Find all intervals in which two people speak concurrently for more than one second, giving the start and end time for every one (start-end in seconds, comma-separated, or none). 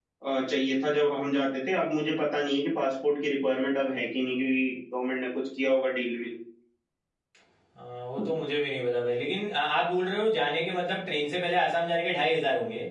none